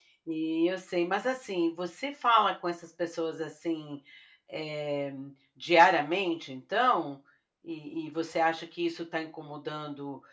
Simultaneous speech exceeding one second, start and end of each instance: none

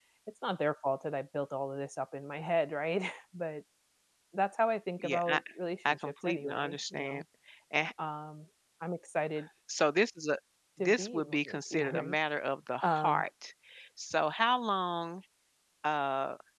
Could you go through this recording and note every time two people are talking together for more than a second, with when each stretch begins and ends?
5.8-7.2, 10.8-12.2

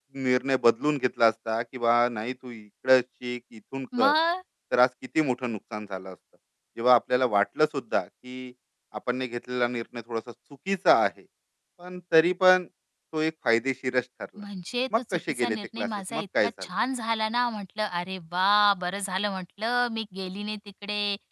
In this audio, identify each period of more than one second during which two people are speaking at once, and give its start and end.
15.1-16.5

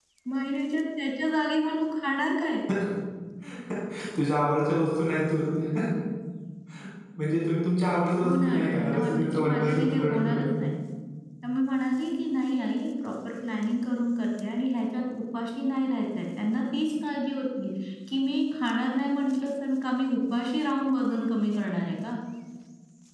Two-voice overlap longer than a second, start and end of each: 8.2-10.4

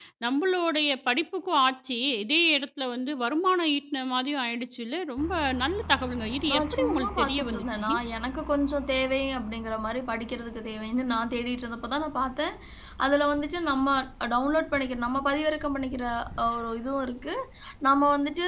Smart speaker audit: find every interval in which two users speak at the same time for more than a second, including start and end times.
6.5-7.9

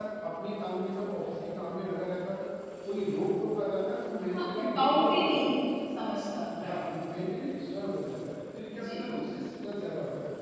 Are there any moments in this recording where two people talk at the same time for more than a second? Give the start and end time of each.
4.3-5.5

